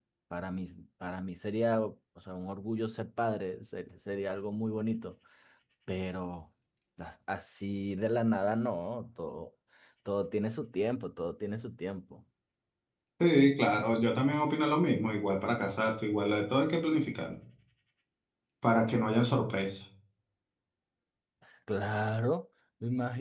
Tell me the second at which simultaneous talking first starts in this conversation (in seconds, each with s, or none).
none